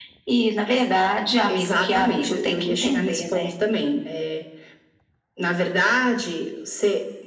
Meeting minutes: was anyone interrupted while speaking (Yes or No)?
Yes